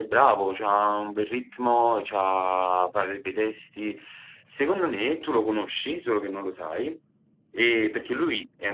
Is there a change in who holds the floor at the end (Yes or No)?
No